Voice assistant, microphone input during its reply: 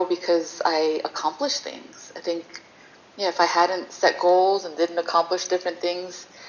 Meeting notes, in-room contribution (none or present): none